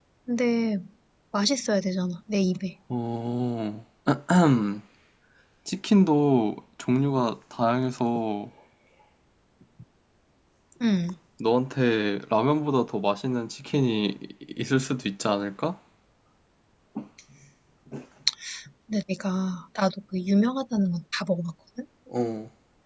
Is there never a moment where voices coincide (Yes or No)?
Yes